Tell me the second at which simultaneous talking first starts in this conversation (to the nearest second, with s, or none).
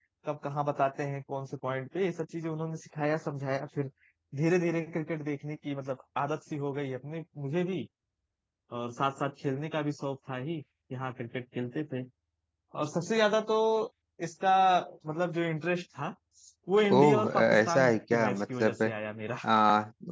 17 s